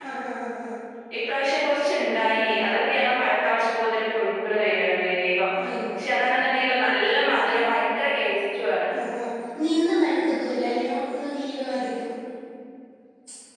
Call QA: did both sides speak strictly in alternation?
Yes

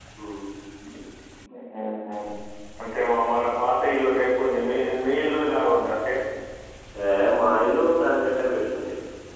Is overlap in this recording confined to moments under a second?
Yes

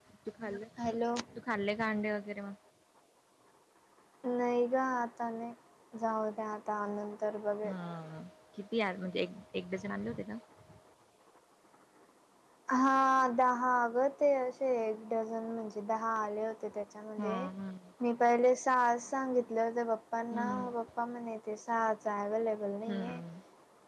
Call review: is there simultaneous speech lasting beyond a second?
No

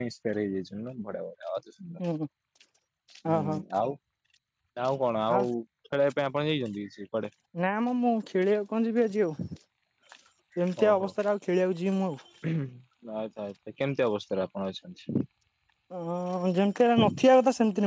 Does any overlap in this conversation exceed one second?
No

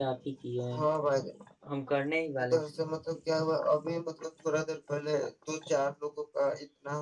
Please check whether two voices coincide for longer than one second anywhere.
No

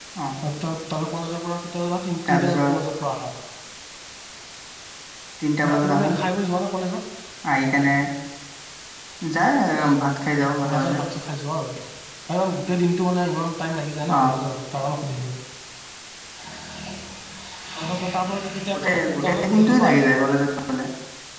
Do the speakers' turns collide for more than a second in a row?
Yes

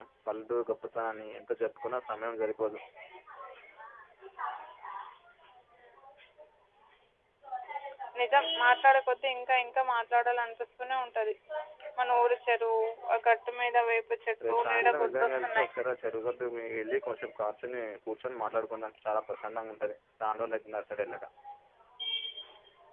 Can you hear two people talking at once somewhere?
Yes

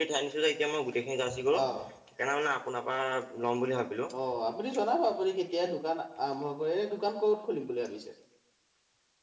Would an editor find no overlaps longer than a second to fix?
Yes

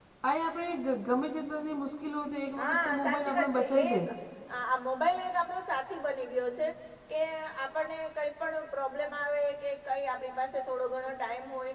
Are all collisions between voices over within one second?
No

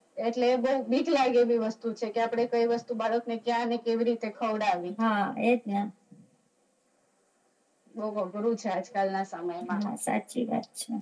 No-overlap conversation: Yes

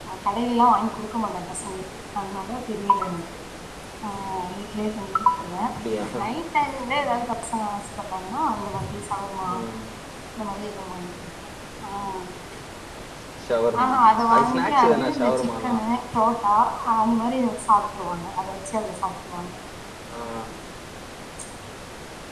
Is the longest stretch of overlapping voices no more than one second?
No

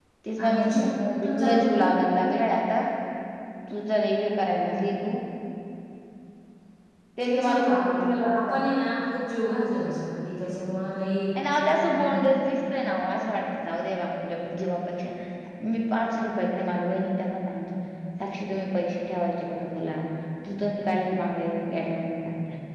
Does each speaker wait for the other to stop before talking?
No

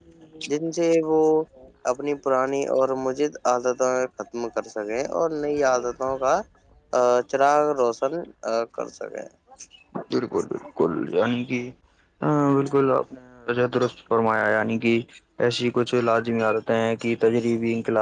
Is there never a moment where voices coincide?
Yes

